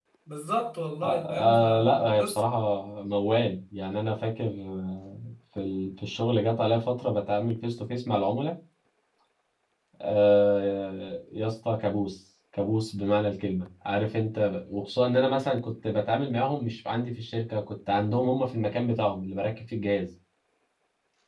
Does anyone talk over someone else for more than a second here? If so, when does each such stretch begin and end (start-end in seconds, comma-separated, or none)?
1.0-2.4